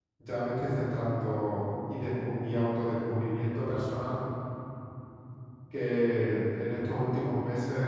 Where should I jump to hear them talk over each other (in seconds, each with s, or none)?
none